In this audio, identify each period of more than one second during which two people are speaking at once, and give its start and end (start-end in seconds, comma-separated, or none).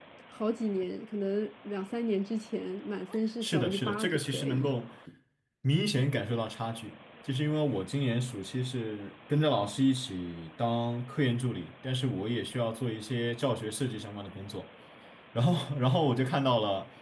3.4-4.7